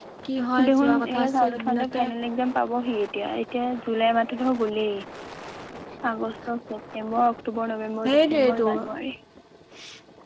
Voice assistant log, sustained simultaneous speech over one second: present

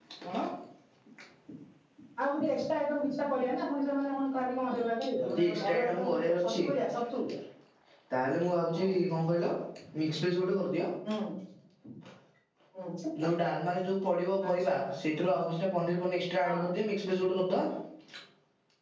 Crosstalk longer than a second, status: present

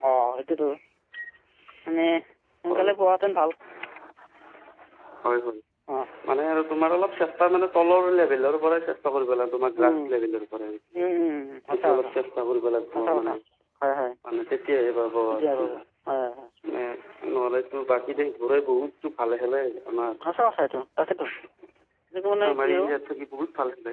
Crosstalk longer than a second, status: none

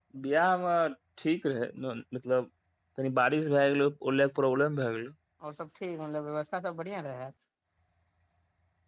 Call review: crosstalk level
none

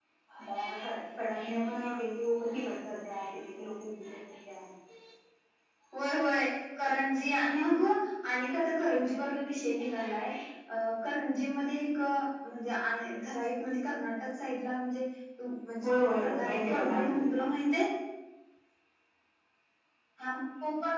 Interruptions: present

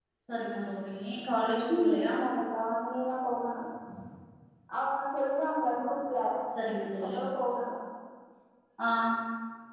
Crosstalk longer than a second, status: none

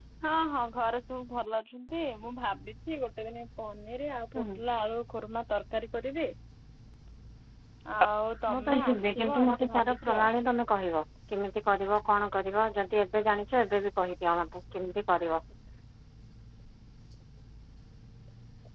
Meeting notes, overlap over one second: present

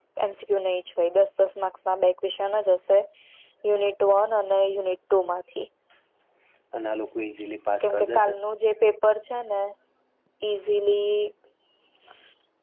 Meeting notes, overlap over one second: none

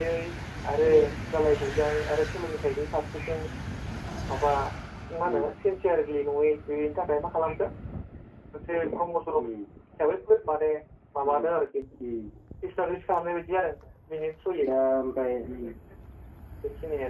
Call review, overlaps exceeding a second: none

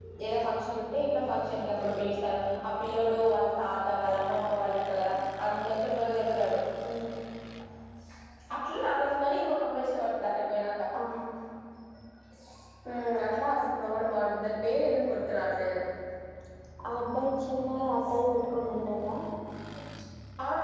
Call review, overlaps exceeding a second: none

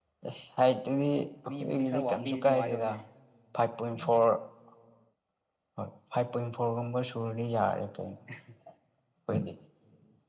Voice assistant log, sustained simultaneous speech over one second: present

